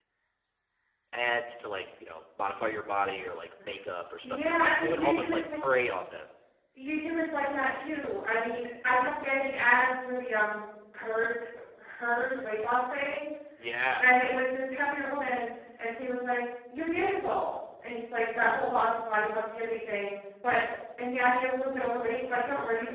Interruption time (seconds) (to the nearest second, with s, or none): 4 s